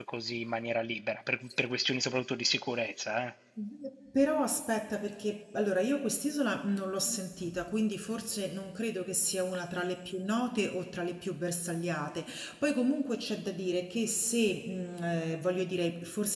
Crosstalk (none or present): none